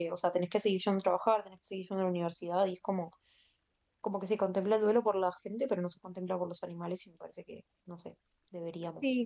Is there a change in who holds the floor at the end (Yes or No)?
Yes